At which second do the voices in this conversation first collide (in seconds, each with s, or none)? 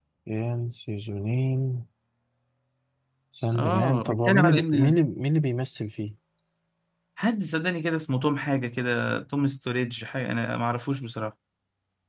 3.5 s